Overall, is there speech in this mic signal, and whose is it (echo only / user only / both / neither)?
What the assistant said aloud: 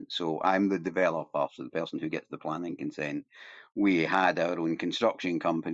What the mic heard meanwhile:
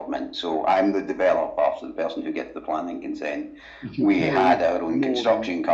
both